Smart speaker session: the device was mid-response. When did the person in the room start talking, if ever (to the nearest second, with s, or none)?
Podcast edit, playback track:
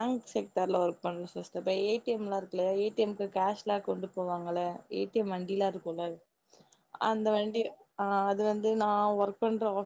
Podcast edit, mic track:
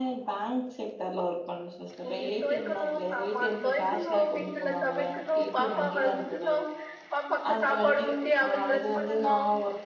2 s